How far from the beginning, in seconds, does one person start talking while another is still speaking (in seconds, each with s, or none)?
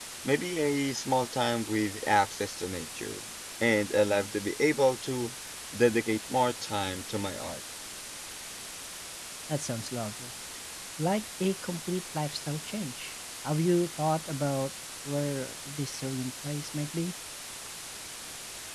none